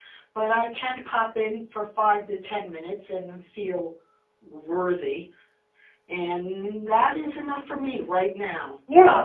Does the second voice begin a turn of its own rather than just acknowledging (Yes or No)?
Yes